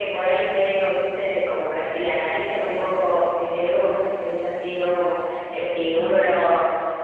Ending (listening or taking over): listening